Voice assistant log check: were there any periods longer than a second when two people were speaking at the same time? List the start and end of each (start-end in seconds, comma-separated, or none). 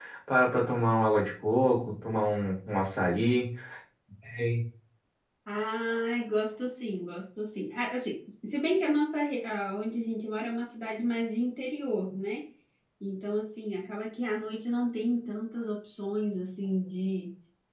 none